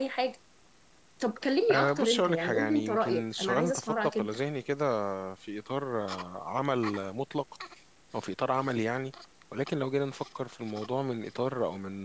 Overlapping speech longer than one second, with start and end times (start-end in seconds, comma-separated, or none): 1.7-4.3